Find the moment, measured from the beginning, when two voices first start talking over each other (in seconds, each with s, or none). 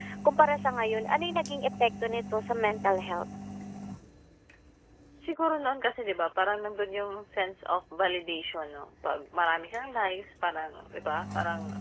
none